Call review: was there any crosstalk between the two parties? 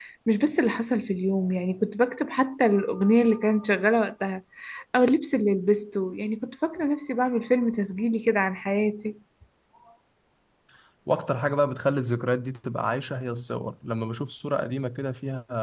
No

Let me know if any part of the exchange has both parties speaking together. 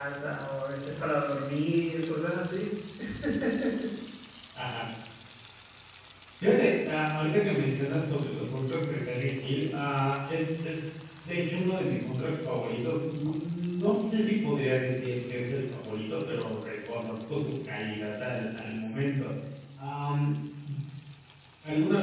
No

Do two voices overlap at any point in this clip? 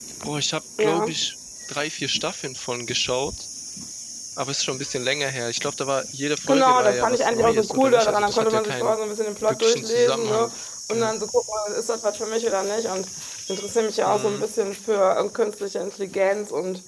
Yes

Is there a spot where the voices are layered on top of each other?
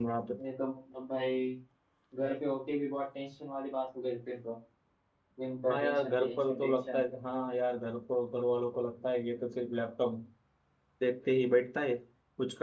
Yes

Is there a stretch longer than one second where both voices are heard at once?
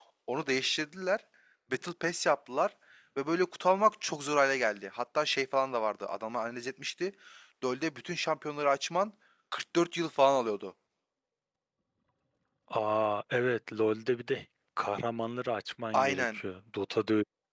No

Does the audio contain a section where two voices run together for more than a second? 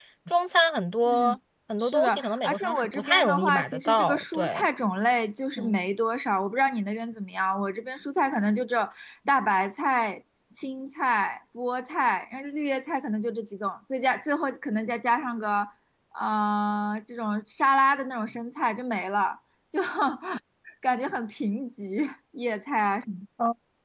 Yes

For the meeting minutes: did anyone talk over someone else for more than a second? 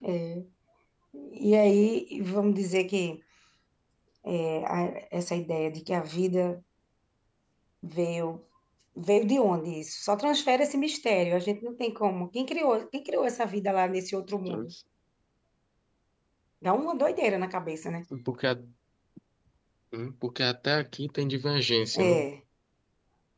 No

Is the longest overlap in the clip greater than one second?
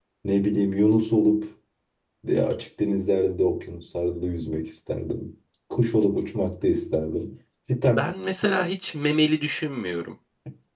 No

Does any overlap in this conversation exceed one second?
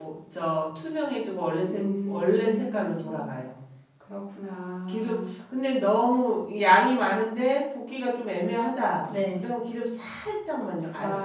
Yes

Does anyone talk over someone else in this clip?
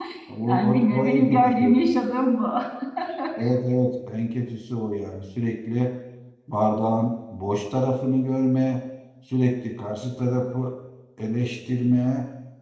Yes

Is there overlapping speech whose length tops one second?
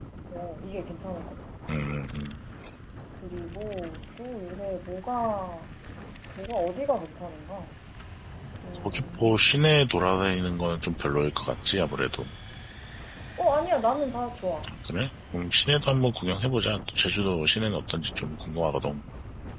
No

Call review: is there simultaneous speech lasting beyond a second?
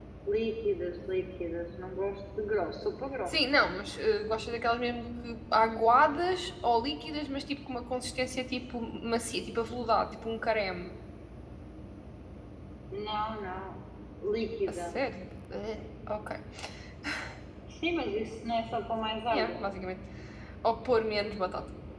No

